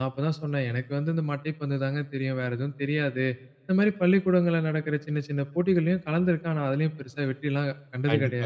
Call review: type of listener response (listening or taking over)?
taking over